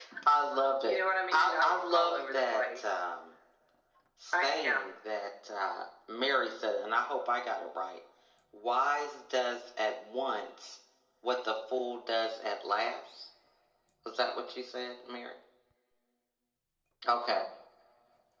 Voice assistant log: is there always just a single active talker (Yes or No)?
No